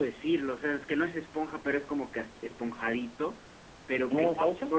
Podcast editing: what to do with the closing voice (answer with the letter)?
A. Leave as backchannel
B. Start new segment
A